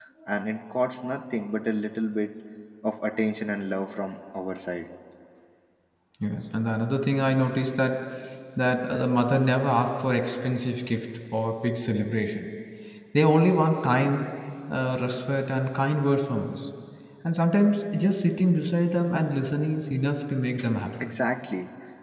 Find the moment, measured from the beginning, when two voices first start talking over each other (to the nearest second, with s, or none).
none